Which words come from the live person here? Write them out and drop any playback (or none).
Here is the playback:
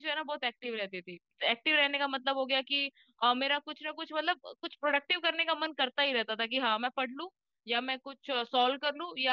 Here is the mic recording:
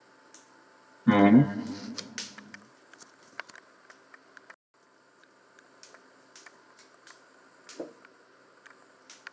हम्म